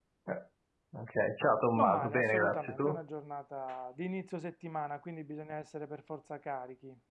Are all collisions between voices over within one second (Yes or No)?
No